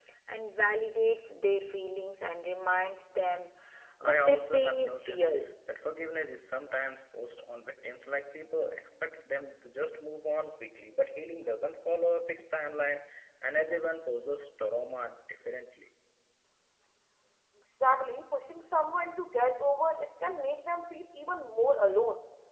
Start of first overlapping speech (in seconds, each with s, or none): 4.0 s